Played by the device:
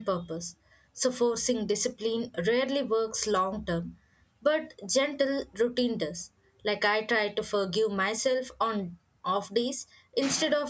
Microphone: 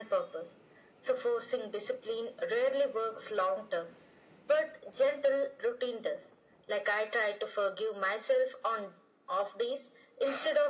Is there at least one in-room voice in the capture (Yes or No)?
No